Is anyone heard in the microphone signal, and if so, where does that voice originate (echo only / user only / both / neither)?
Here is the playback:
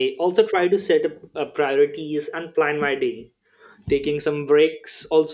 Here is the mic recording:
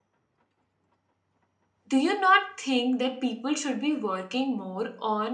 user only